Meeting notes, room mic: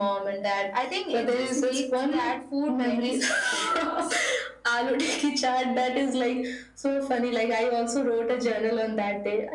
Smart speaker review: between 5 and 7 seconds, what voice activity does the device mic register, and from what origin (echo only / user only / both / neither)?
echo only